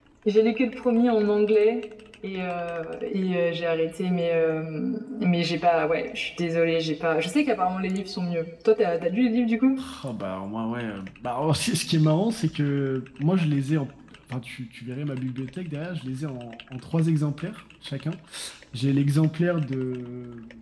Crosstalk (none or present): none